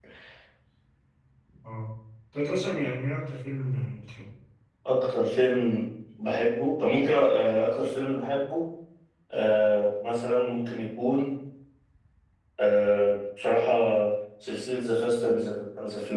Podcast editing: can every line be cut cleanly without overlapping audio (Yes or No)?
Yes